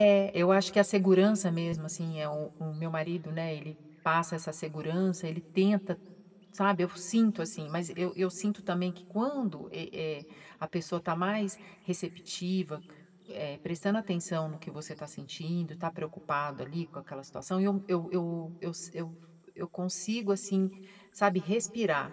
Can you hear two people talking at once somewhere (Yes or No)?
No